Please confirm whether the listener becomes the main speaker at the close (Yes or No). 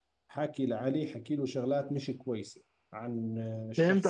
Yes